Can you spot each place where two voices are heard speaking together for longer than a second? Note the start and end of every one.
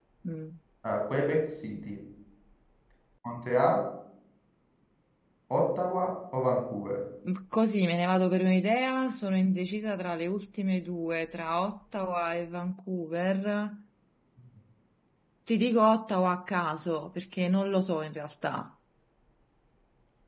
none

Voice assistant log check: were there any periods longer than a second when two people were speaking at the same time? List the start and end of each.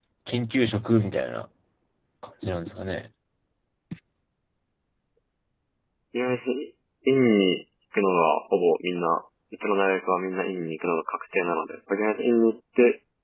none

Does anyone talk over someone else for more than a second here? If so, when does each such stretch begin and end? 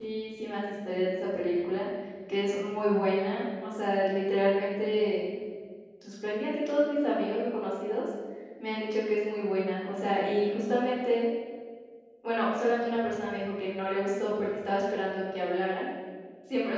none

